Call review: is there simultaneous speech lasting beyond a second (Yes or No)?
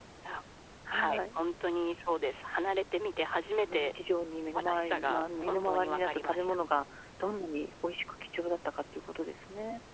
Yes